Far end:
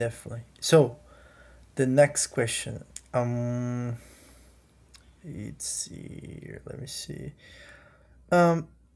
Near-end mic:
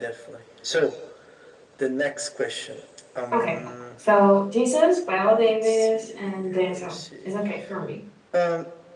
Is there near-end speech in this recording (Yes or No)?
Yes